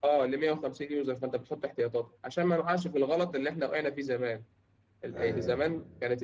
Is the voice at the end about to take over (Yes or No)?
No